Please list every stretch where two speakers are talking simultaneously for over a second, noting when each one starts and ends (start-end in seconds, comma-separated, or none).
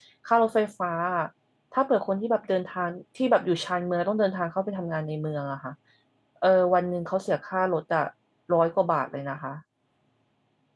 none